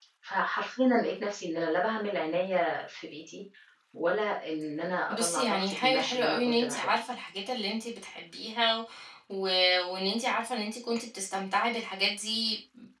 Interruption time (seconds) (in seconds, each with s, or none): 5.1 s